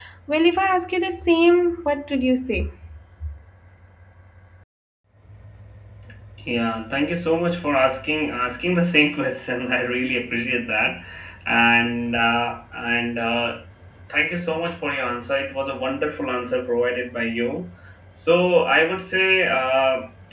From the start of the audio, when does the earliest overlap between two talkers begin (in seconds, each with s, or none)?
none